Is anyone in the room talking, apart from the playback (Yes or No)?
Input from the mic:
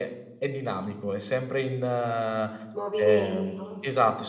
Yes